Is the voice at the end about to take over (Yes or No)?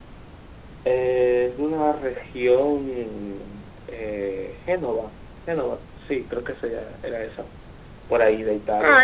Yes